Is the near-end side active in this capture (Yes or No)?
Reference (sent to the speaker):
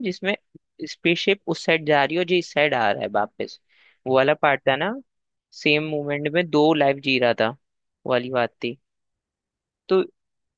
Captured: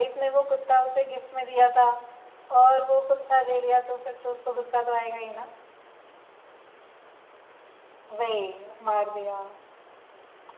Yes